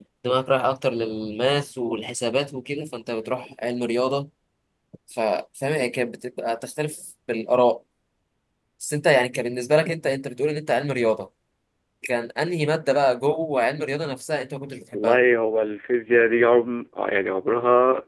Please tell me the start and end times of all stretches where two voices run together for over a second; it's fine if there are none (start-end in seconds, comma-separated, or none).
none